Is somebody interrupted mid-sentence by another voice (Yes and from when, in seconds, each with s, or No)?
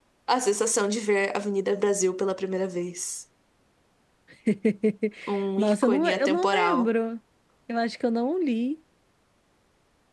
Yes, from 5.6 s